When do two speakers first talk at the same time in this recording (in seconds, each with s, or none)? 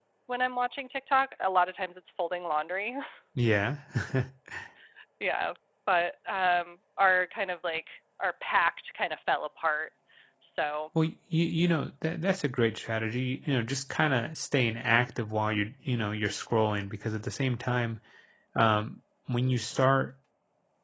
none